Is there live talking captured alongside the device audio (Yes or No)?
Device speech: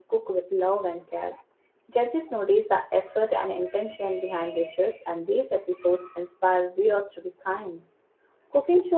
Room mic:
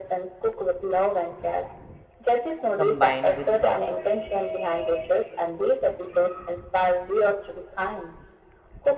Yes